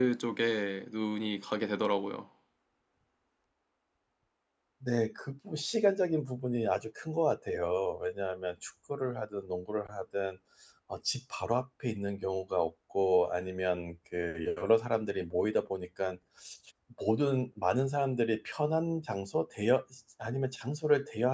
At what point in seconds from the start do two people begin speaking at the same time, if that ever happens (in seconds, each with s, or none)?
none